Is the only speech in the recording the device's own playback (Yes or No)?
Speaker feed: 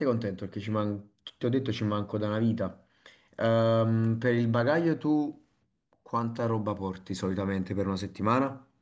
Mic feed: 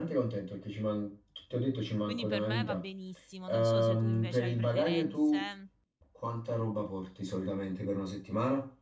No